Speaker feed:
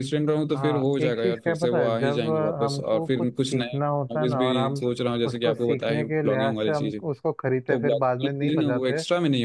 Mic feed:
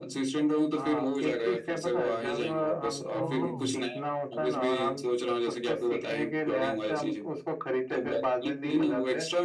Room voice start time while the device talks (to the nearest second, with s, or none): 3 s